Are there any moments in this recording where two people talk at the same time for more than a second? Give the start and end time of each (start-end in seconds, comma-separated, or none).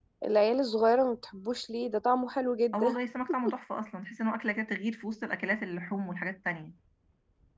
none